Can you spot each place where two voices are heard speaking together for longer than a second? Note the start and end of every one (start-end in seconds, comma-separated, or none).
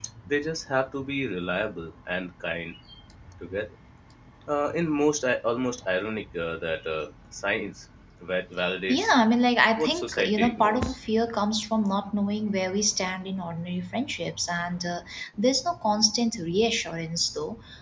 9.8-11.0